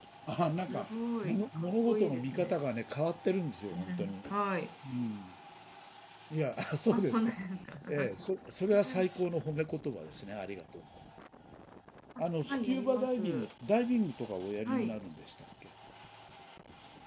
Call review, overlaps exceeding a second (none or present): present